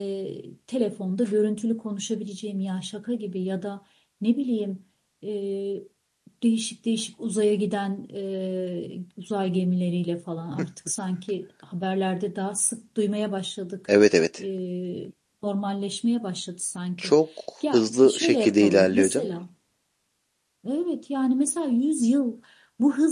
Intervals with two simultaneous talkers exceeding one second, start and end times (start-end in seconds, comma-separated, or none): 17.7-19.3